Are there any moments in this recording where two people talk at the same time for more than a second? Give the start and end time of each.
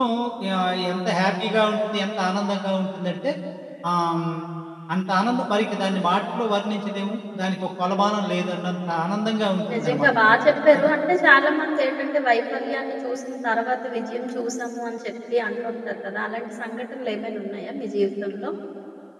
none

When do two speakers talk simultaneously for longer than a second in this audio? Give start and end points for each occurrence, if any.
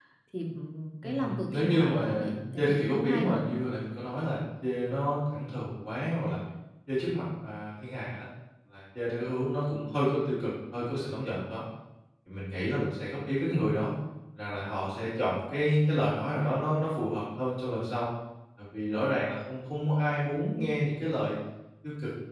1.0-3.4

